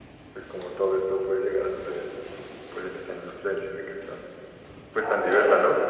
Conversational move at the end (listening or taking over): taking over